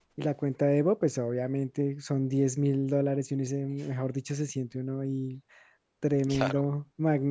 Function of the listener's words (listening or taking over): listening